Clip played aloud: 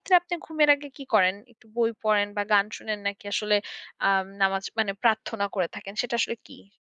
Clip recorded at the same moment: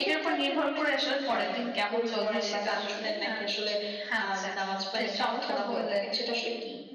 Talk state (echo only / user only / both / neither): both